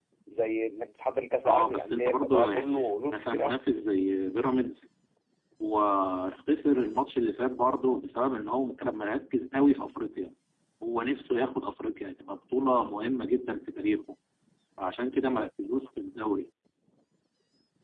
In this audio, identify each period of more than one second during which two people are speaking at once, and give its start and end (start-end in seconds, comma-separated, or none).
1.4-3.6